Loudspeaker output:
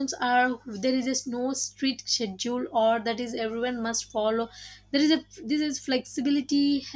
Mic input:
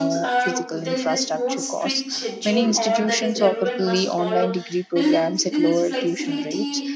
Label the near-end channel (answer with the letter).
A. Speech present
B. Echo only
A